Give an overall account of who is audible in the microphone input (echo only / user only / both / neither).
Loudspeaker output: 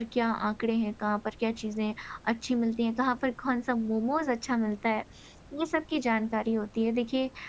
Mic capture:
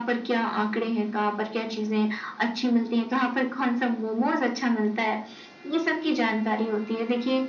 echo only